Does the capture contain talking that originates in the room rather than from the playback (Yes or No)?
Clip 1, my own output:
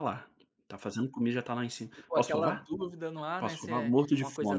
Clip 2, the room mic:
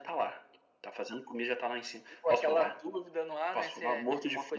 No